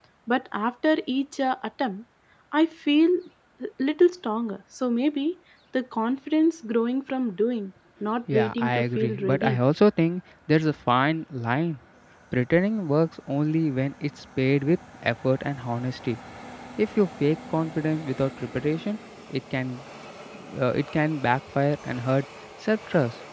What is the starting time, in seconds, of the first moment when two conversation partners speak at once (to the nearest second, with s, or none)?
8 s